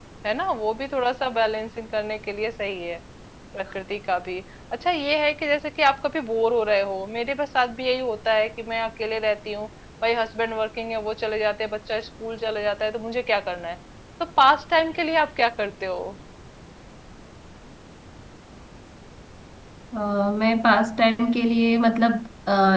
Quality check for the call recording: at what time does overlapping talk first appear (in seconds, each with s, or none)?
none